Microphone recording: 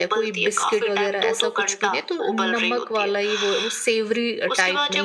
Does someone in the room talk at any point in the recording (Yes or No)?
Yes